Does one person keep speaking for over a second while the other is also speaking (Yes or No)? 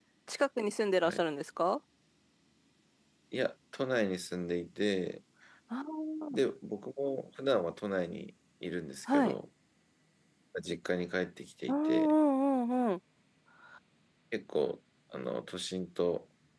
No